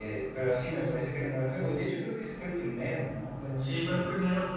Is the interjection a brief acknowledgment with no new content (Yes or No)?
No